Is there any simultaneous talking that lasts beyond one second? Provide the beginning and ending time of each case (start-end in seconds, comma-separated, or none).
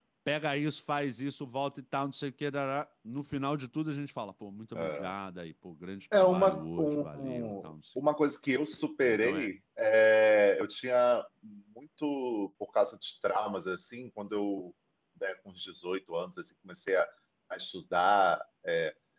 6.1-8.0